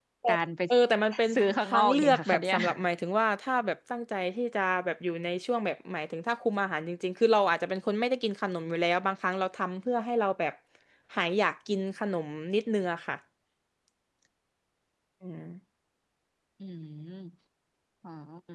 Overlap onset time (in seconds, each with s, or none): 1.3 s